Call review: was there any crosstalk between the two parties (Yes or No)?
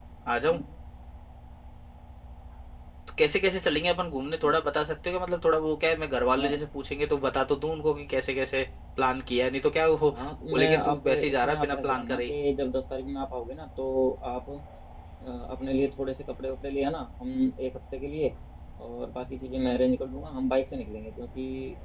Yes